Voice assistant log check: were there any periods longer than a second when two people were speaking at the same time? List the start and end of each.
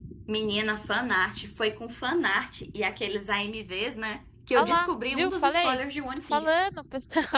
4.5-5.8

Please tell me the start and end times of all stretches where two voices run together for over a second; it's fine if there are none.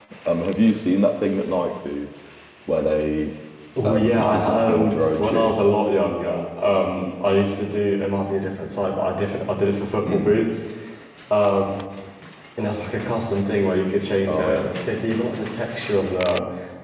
3.8-5.6

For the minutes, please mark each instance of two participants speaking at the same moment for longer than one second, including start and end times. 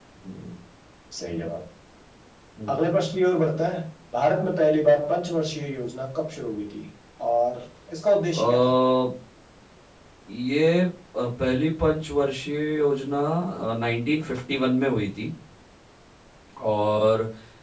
none

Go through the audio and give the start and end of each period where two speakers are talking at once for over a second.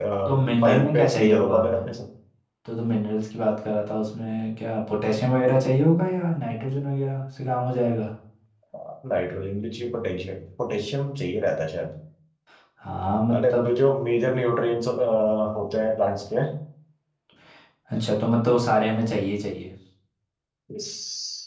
0.6-1.9

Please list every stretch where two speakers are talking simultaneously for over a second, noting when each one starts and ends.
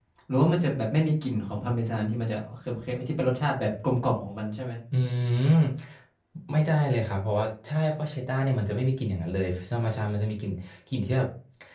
none

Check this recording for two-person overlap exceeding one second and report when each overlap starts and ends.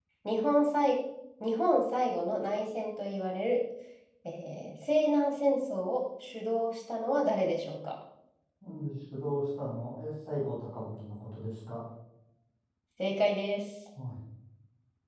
none

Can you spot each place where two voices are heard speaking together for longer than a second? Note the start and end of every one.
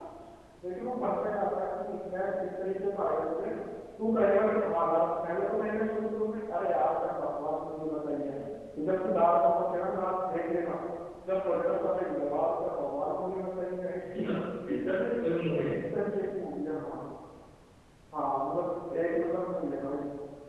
none

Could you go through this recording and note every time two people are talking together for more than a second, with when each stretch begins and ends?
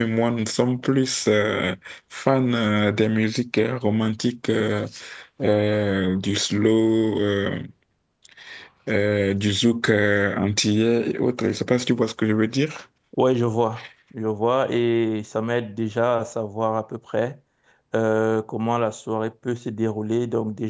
none

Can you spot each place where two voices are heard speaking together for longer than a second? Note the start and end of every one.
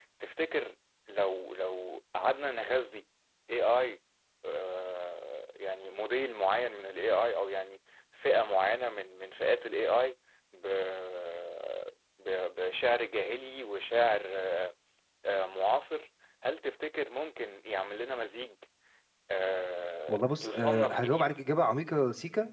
20.1-21.4

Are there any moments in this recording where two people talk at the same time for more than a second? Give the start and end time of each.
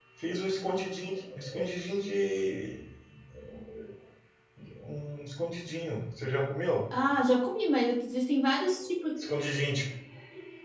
none

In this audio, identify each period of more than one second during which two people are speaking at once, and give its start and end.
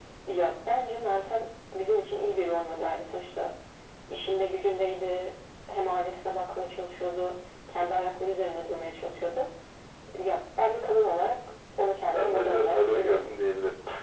12.1-13.4

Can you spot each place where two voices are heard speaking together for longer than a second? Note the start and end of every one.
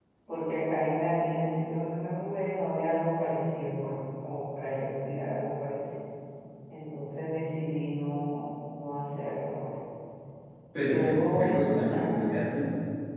10.8-12.3

